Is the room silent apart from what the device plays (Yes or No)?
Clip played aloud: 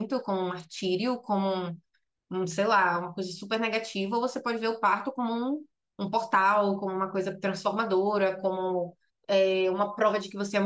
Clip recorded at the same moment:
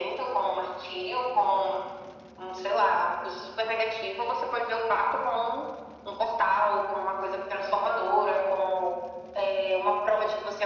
Yes